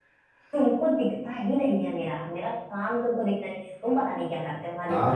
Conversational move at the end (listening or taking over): taking over